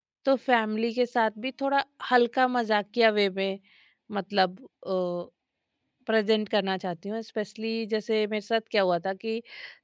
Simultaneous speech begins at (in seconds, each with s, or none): none